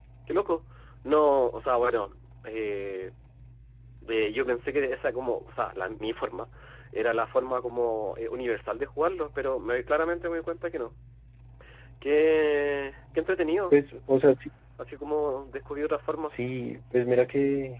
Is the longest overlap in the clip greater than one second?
No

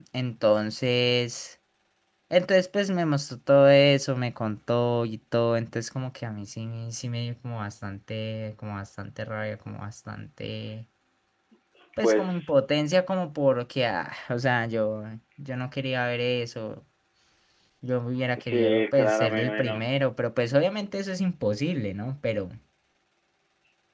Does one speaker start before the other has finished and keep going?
Yes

